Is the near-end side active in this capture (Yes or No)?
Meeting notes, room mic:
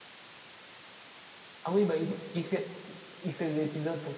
Yes